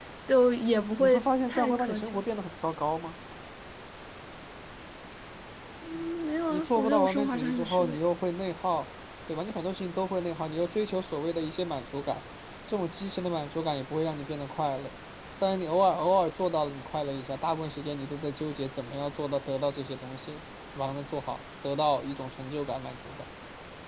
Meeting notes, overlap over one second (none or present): present